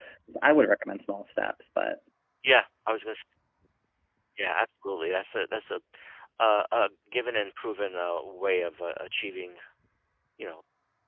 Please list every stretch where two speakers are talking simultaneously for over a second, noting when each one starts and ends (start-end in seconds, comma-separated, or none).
none